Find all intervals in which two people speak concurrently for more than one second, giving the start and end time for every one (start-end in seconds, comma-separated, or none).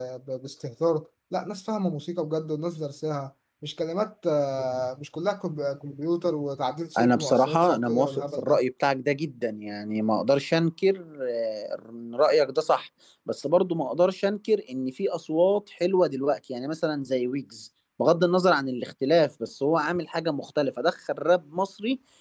7.0-8.6